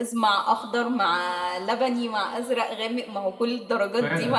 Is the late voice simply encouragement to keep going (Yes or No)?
No